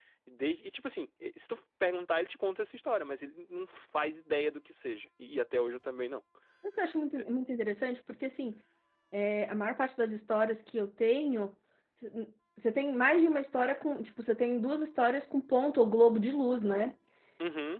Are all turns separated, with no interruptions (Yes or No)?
Yes